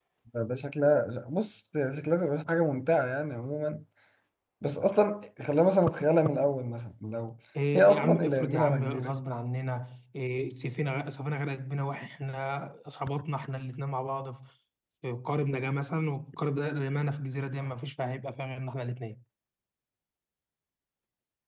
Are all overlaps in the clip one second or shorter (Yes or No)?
No